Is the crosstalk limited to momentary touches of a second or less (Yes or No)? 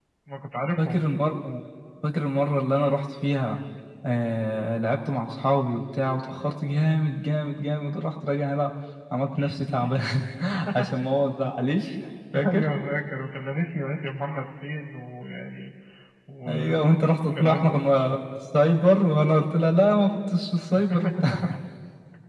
No